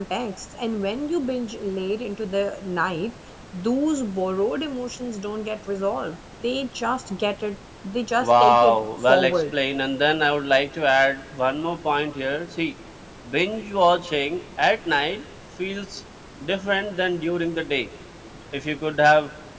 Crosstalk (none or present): present